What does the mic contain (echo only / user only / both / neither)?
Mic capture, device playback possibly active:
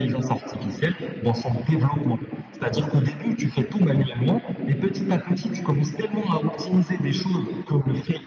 echo only